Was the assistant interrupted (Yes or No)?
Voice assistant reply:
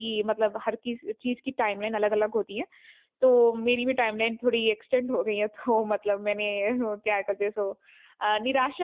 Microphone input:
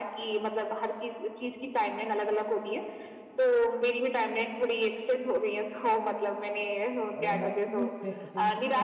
Yes